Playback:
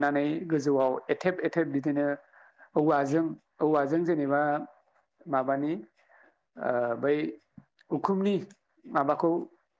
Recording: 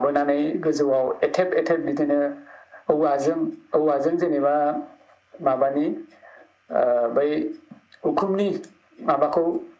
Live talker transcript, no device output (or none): none